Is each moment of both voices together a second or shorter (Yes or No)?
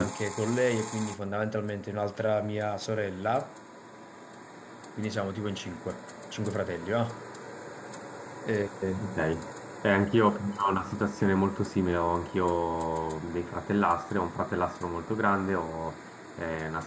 Yes